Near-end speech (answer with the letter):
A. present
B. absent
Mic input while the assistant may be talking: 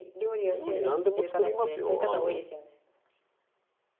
A